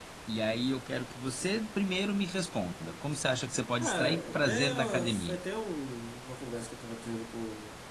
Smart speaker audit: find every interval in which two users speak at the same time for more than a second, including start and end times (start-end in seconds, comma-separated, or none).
3.8-5.4